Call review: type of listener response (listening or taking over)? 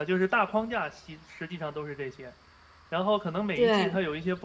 listening